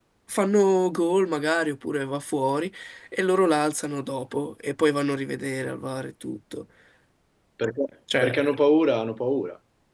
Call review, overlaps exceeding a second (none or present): none